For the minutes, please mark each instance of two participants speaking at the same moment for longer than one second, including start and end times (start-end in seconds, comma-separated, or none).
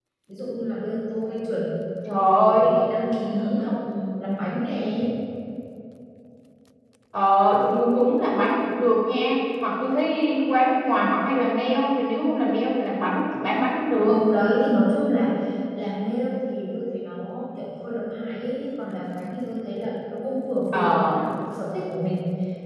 none